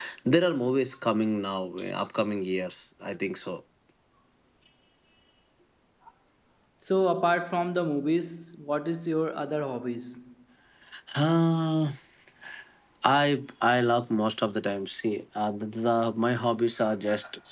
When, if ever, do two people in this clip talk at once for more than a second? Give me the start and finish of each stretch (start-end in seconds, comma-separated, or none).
none